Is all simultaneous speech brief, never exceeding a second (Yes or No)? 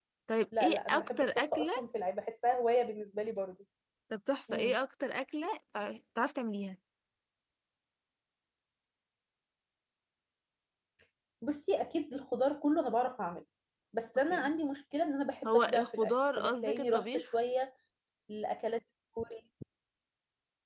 No